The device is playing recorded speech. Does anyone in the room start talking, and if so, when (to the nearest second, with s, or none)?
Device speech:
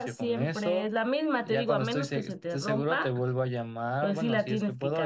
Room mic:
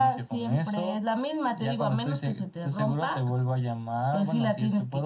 none